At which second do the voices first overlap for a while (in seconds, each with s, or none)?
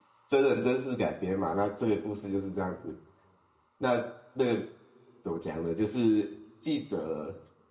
none